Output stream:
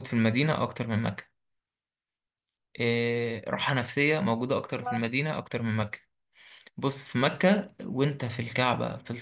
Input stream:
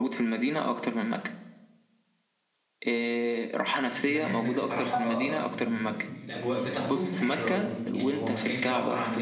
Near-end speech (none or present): present